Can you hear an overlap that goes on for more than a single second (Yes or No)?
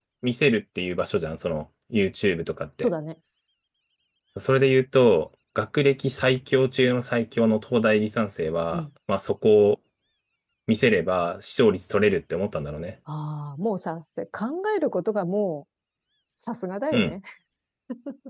No